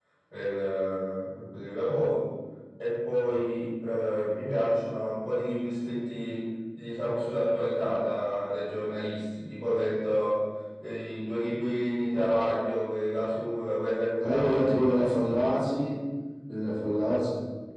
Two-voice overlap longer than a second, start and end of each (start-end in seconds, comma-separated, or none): 14.2-15.6